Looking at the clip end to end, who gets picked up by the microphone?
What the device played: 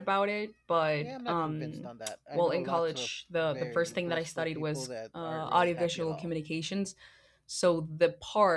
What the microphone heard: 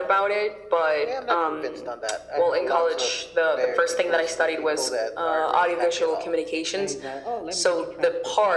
both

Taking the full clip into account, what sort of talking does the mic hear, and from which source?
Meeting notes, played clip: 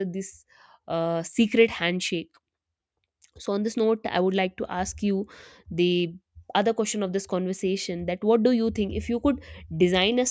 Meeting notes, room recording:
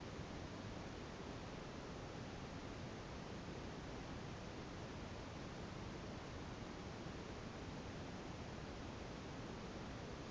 neither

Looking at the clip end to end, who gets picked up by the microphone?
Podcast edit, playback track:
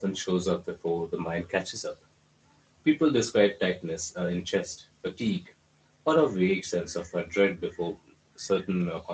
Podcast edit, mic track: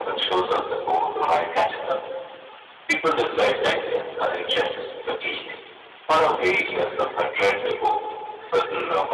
echo only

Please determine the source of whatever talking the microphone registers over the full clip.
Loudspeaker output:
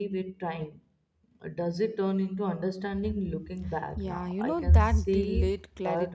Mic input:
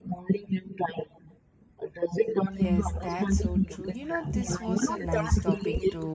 both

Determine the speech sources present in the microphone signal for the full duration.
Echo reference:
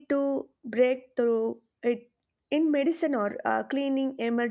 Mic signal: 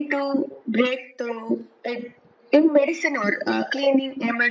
echo only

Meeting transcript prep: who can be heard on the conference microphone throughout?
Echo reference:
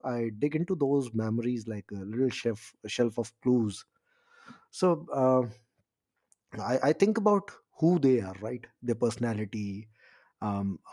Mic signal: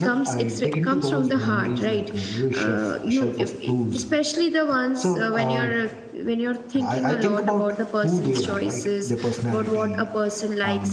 both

